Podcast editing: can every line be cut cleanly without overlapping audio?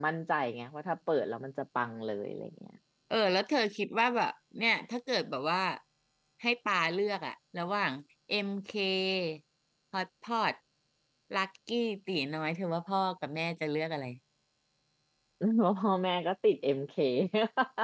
Yes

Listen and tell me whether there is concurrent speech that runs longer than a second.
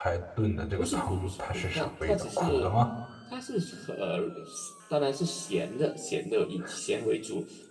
Yes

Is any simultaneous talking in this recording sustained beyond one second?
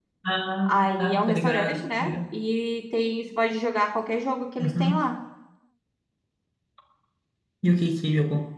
Yes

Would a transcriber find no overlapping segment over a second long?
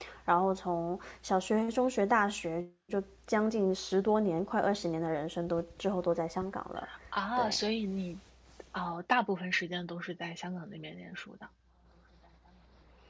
Yes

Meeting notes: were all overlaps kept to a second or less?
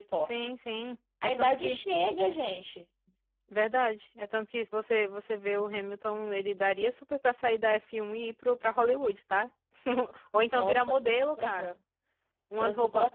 No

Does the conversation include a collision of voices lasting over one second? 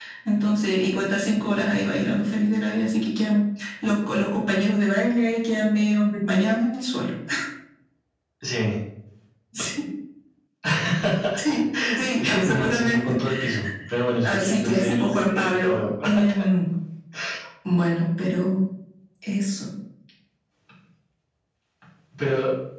Yes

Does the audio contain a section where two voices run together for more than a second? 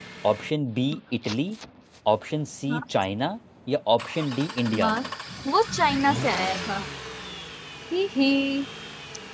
No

